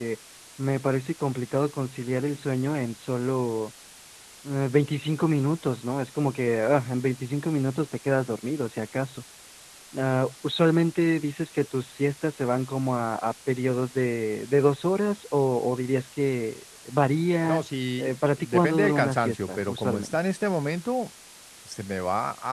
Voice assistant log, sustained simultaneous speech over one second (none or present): present